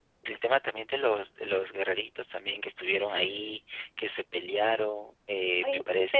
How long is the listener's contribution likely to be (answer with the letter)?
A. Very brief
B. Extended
B